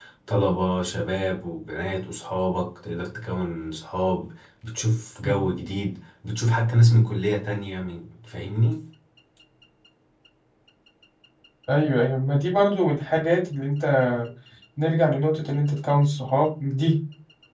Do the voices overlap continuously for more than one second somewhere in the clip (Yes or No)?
No